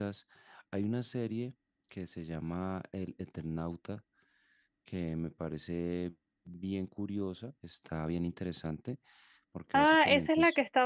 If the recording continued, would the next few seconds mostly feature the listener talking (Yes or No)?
Yes